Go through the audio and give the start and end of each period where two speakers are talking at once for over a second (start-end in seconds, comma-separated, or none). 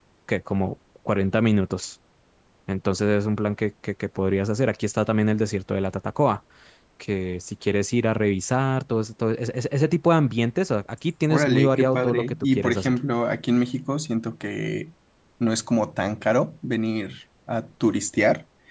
11.3-13.0